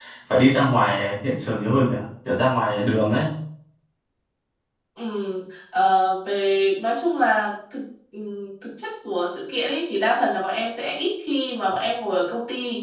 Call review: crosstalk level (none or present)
none